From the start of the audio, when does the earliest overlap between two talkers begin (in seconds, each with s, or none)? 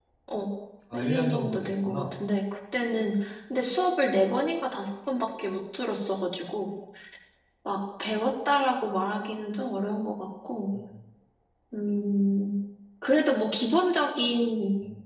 0.9 s